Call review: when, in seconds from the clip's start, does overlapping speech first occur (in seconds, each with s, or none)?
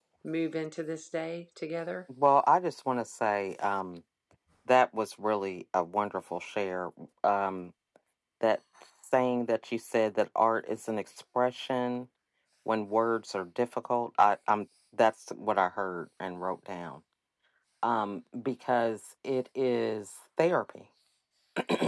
none